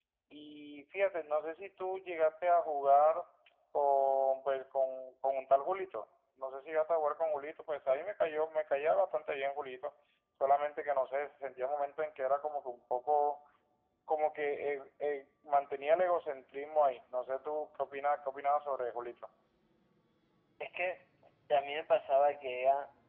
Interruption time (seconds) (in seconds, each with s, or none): none